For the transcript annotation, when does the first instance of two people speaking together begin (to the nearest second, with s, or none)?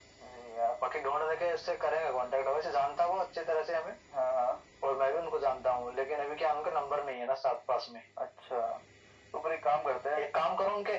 none